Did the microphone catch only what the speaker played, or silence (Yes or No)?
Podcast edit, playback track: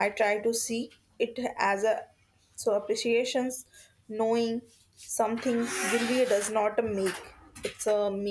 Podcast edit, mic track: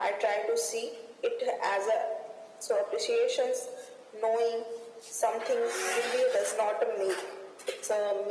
Yes